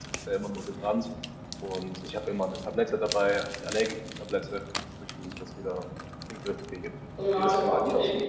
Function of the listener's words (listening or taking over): taking over